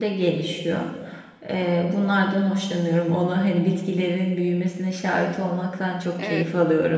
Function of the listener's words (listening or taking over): taking over